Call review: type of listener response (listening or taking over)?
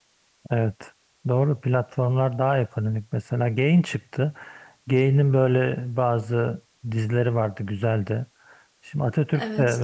listening